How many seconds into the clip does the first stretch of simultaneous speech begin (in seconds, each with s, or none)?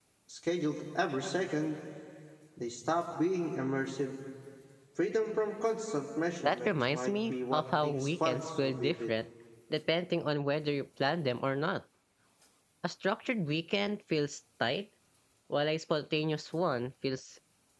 6.4 s